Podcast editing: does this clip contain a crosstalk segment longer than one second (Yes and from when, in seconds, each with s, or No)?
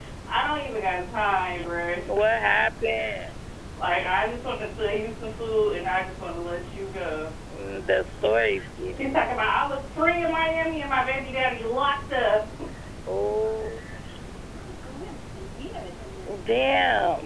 No